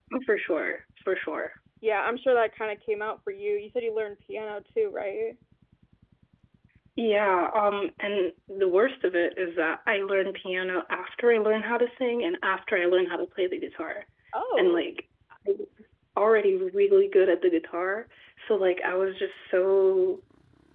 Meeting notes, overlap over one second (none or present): none